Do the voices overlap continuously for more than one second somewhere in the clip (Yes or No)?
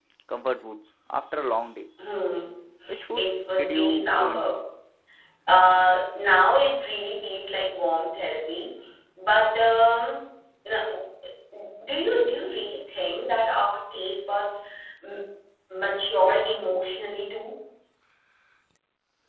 Yes